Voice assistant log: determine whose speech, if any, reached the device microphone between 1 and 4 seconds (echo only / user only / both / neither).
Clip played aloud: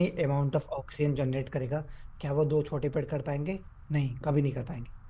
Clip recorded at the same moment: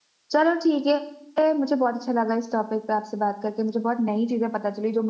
user only